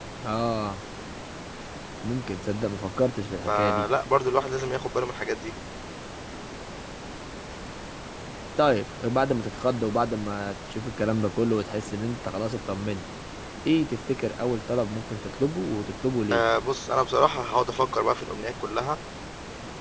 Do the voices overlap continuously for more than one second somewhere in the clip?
No

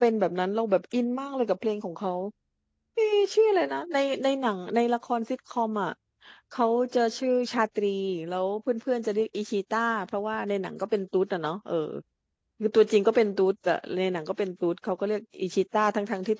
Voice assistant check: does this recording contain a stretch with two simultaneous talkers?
No

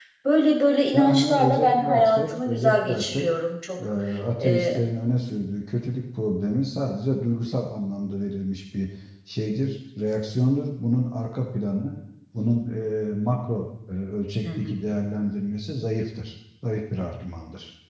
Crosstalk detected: Yes, from 0.9 s

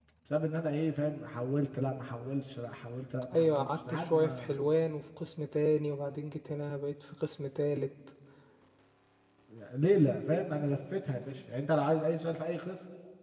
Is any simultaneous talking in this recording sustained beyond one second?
Yes, from 3.3 s

